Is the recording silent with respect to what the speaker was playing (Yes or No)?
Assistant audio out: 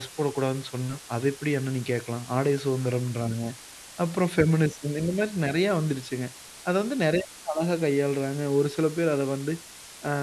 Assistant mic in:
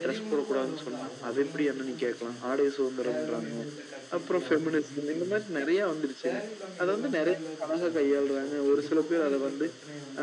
No